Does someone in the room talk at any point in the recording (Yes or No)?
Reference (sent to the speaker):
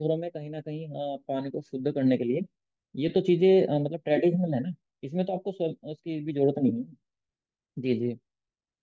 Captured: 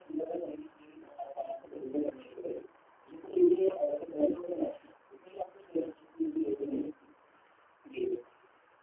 No